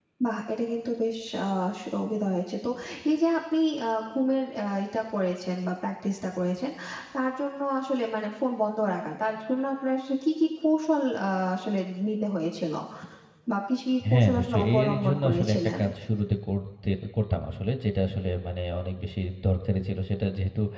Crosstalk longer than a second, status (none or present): present